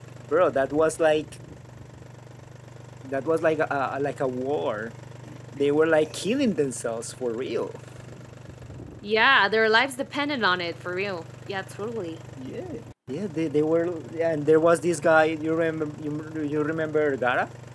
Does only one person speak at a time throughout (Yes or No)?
Yes